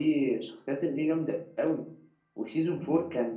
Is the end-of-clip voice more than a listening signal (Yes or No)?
No